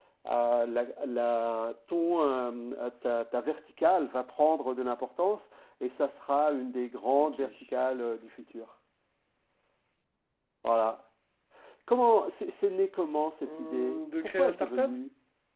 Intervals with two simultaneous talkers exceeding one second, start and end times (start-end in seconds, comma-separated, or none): 13.4-15.0